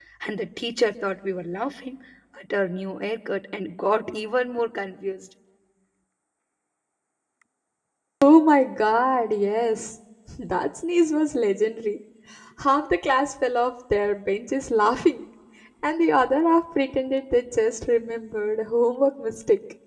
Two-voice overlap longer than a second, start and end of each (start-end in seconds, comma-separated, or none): none